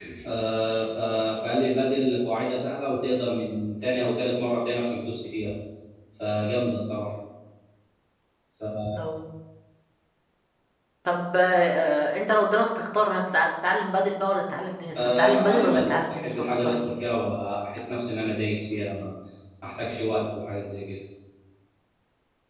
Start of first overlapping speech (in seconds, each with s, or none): 14.9 s